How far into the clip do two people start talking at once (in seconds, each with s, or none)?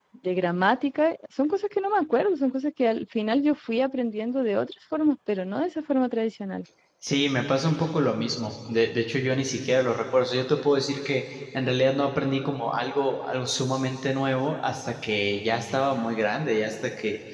none